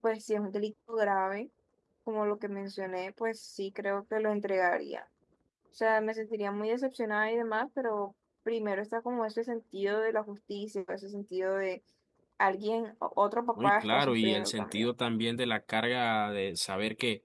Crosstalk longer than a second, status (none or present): present